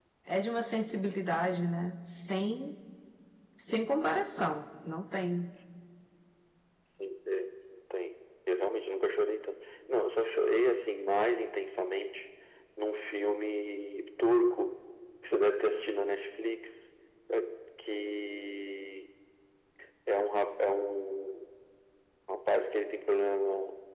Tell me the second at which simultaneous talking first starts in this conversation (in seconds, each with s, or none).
none